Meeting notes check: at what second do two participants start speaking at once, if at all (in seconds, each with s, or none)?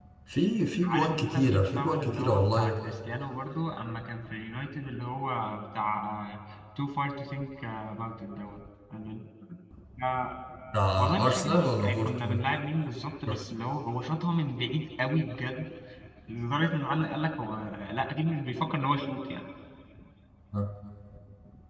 0.8 s